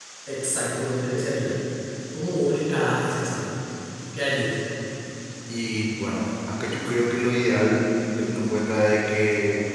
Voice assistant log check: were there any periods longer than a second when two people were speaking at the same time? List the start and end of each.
none

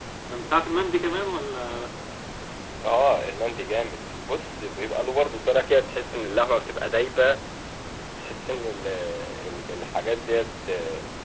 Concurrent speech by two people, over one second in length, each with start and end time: none

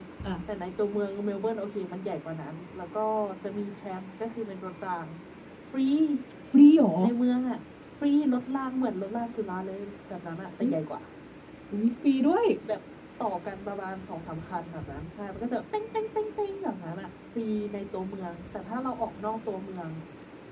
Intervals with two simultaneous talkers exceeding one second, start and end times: none

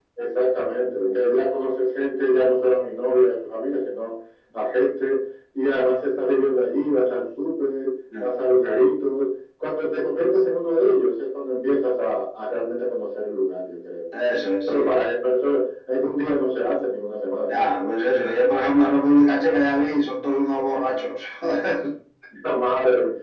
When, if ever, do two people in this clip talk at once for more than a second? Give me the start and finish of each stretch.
none

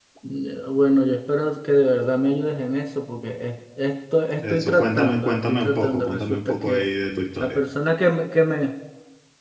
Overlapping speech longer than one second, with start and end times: 4.4-6.9

